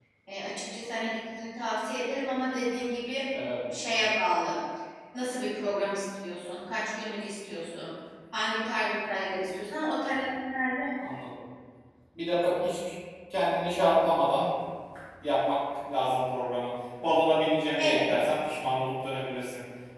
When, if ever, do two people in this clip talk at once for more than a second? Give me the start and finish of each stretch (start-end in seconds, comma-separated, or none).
none